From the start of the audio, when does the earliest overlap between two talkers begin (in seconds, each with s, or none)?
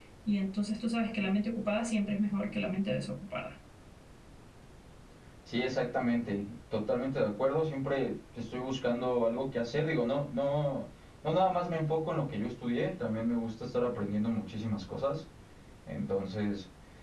none